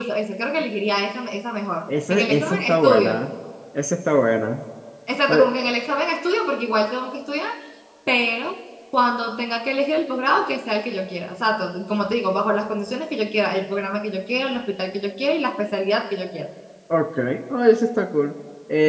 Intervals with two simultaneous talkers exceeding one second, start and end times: 1.9-3.2

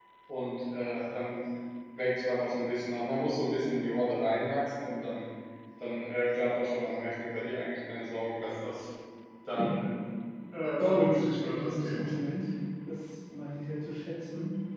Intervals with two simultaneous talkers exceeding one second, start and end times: 10.8-12.1

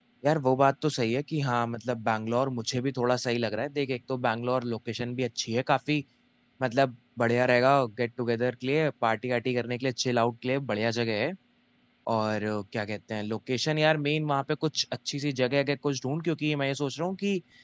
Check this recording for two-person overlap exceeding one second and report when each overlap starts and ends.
none

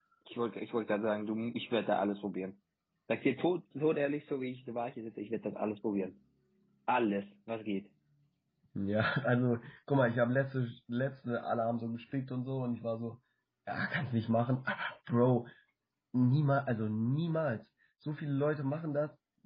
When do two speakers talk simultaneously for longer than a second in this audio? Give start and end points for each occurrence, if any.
none

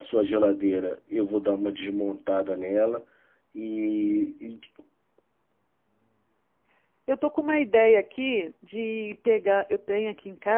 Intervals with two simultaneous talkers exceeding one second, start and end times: none

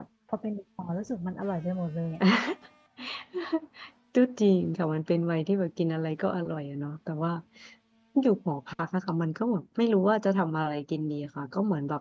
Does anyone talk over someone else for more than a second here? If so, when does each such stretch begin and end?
none

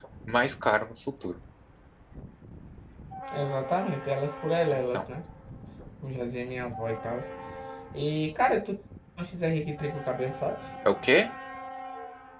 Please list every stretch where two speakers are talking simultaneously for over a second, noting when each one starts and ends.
none

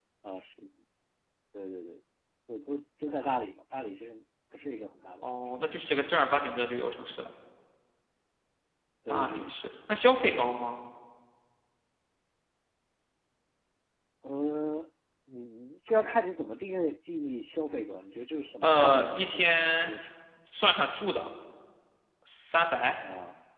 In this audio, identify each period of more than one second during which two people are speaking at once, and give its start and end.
18.6-19.9

